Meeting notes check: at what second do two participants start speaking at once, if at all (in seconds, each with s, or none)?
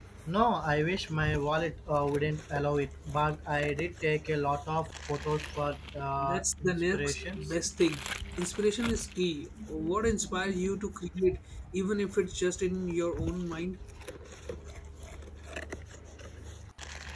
6.2 s